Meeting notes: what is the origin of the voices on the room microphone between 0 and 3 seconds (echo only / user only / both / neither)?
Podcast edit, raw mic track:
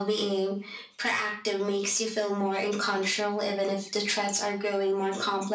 echo only